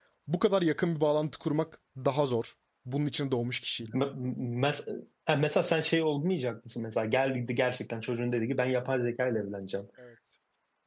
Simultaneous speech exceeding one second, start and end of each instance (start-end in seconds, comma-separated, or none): none